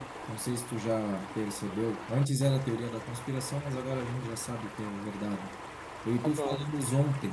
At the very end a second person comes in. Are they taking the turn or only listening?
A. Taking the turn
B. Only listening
B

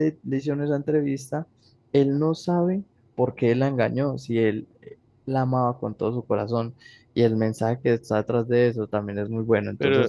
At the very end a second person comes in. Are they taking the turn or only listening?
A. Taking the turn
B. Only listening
A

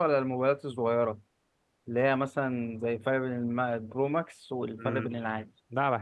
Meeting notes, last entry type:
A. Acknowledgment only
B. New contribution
B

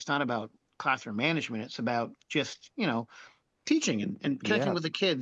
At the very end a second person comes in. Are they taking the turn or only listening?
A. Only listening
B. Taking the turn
A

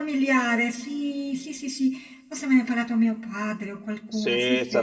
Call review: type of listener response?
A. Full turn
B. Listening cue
A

